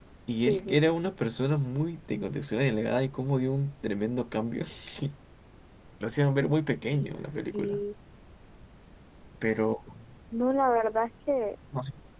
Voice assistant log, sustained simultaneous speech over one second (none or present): none